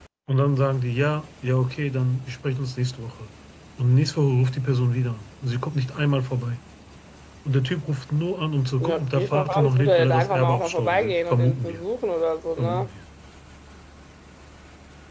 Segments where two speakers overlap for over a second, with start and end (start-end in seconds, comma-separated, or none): 8.8-11.8